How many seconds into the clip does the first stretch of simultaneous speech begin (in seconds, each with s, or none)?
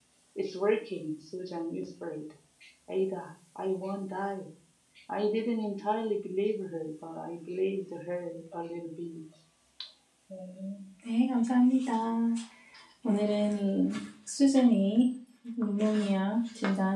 none